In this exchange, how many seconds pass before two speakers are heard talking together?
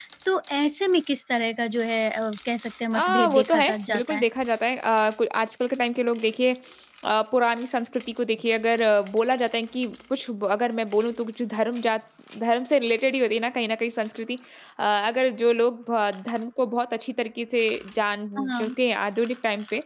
2.9 s

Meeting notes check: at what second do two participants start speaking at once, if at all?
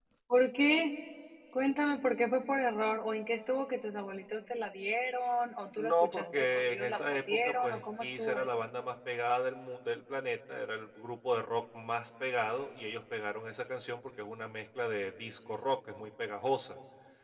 5.8 s

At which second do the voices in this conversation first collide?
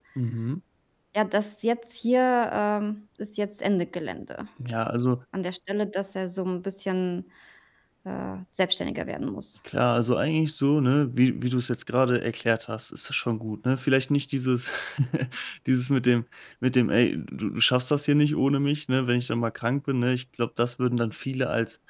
none

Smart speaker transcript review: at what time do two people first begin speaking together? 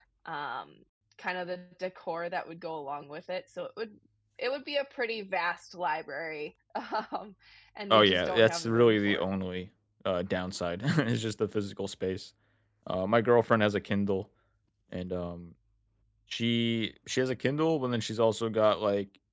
7.9 s

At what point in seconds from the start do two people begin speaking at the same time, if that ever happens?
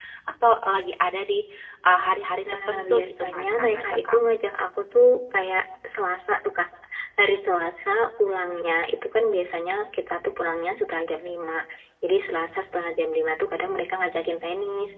2.5 s

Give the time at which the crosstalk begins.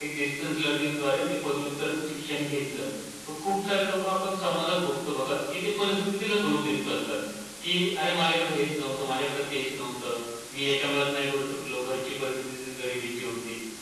none

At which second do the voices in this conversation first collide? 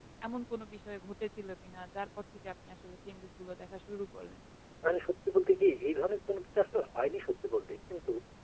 none

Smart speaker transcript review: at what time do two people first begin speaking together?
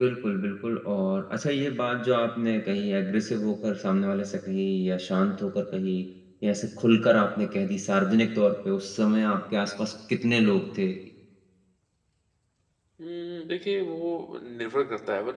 none

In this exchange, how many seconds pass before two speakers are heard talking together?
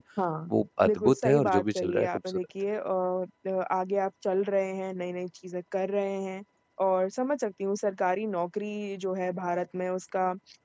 0.9 s

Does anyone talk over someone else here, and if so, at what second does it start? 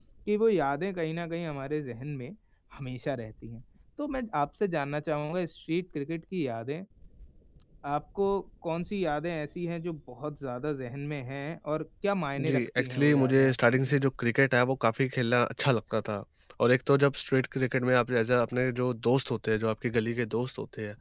12.4 s

